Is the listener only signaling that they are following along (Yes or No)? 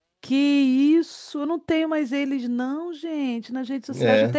No